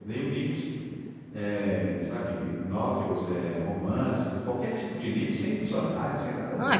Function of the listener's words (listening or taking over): taking over